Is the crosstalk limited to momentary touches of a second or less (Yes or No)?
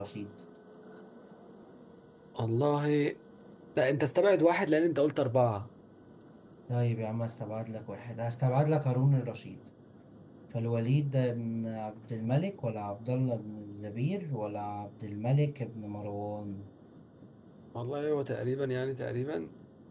Yes